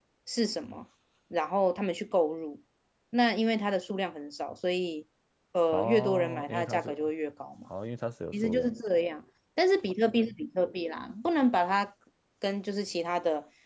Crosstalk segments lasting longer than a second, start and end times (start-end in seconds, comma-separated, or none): 5.7-6.9